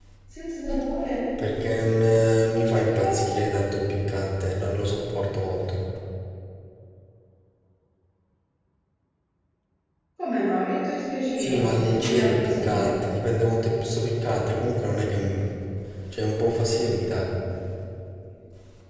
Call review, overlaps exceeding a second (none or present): present